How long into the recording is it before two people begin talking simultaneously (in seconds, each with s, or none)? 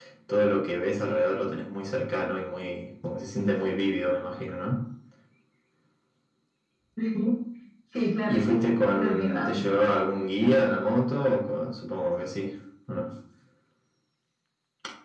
8.3 s